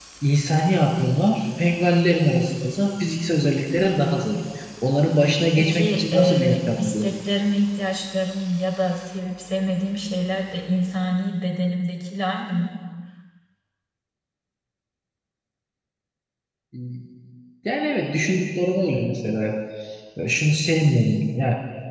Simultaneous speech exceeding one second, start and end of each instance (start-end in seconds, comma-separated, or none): 5.6-7.1